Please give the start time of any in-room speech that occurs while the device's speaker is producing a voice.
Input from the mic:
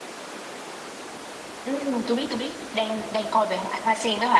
2 s

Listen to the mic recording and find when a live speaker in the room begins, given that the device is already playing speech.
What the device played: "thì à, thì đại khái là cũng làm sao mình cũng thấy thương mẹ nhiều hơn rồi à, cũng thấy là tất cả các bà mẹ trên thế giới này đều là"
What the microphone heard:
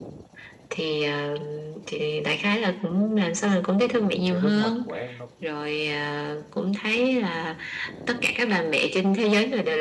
4 s

